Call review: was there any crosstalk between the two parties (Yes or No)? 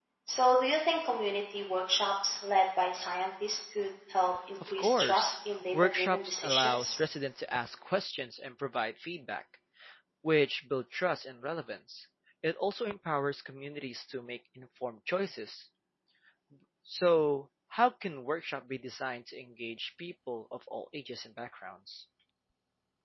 Yes